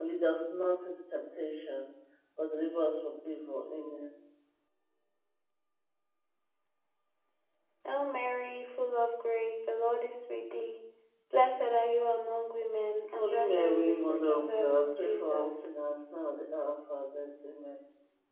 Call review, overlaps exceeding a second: present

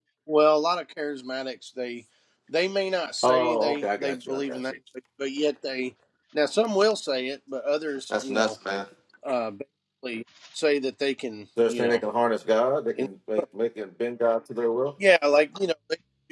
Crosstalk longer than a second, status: present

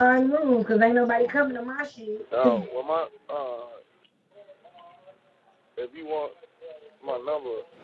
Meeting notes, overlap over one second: none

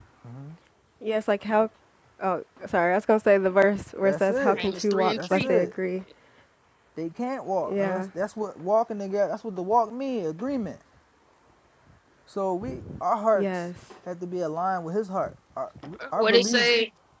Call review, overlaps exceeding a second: present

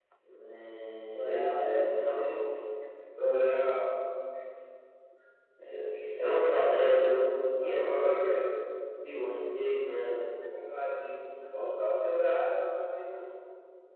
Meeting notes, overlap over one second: present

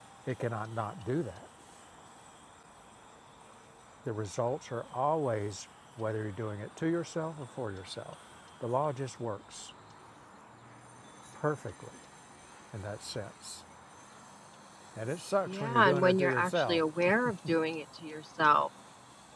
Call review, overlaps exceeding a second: present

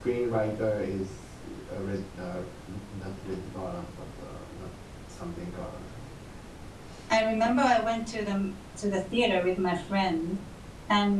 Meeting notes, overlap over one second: none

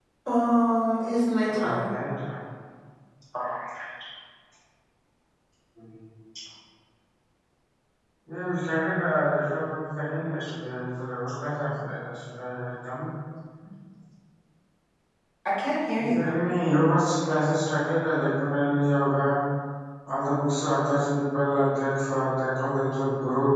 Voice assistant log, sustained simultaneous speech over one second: none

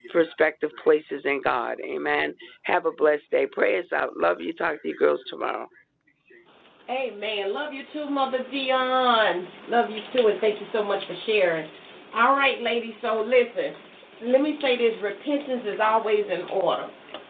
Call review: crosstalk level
none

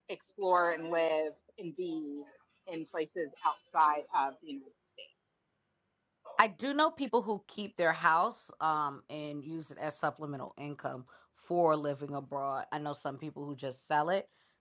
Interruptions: none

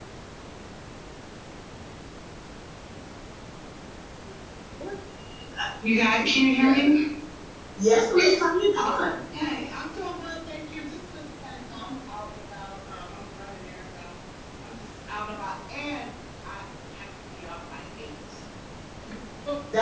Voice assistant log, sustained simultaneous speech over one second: none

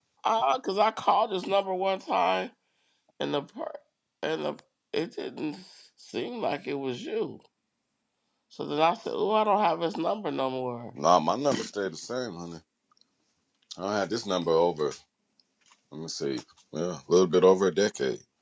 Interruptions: none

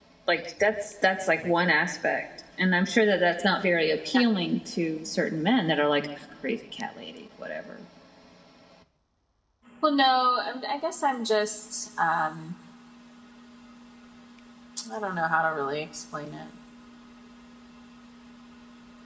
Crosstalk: none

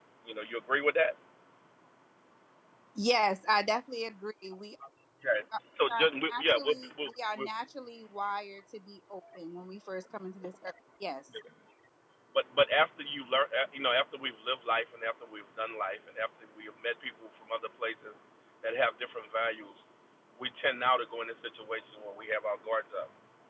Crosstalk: present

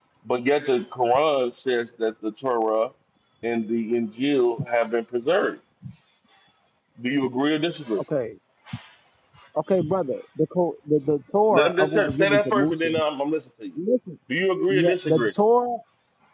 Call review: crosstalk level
present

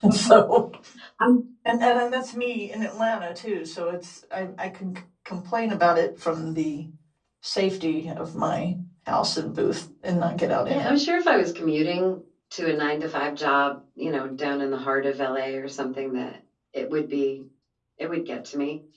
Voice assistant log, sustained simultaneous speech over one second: none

